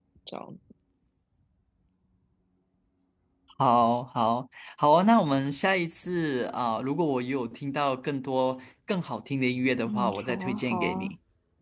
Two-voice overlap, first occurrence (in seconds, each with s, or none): 9.8 s